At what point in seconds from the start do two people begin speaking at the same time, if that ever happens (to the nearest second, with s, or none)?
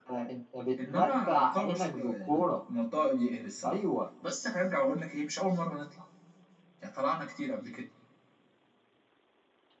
1 s